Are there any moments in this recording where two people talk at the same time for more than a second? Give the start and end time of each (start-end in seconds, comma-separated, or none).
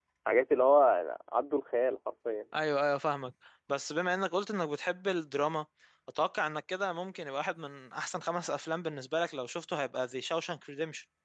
none